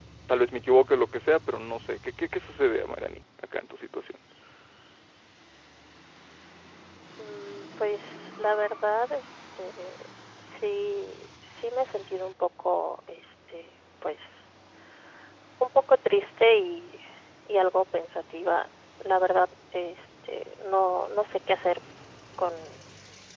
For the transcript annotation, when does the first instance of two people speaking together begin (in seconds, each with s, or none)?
none